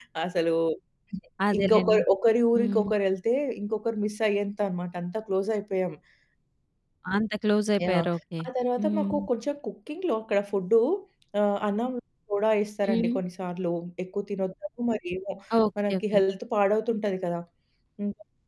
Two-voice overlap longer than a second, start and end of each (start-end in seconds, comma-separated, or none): none